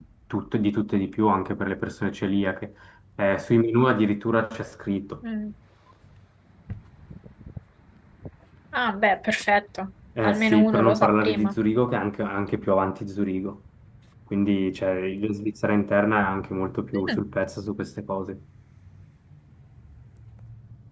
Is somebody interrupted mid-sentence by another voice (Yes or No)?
Yes